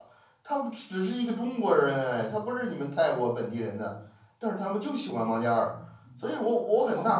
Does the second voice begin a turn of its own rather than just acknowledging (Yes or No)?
Yes